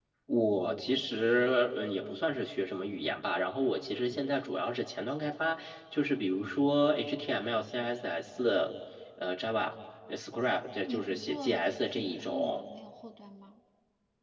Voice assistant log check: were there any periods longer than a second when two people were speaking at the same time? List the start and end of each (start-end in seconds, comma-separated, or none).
10.9-12.6